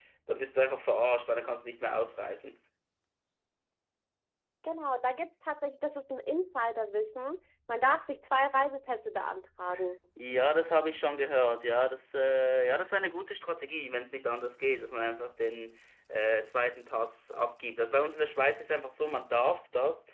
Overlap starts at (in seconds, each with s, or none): none